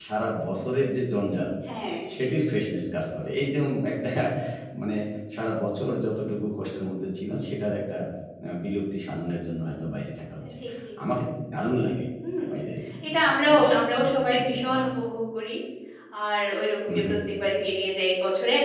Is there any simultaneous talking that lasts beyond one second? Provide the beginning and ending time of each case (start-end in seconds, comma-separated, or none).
13.1-14.8